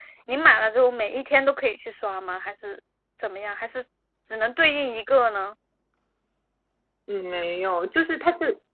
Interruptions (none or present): none